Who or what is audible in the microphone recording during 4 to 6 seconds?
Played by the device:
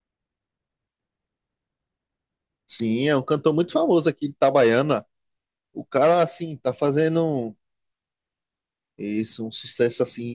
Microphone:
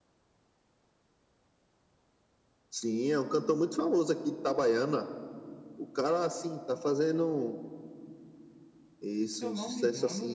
echo only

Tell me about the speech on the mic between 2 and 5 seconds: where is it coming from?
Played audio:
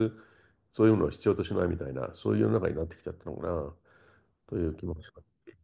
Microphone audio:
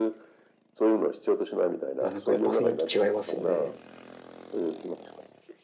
both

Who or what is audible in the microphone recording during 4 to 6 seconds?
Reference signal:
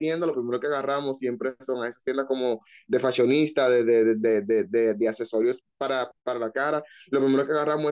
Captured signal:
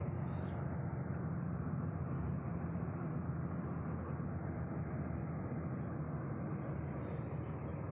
neither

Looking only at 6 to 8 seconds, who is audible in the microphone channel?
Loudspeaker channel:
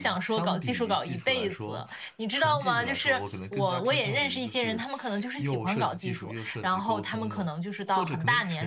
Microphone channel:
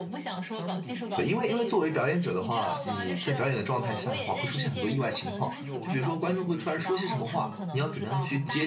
both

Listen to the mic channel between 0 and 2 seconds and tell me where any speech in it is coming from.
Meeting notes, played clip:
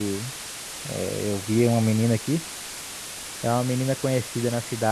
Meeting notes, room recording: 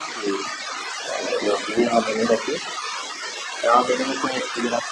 echo only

